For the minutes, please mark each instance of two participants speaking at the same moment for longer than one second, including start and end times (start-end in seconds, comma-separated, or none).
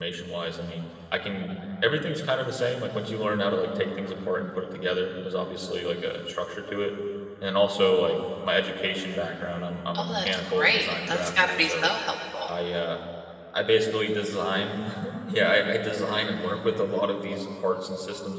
9.9-11.9